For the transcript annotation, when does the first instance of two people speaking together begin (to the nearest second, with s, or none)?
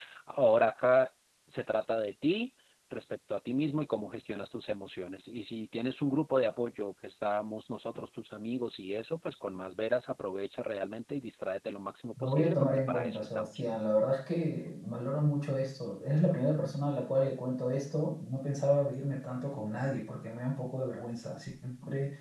12 s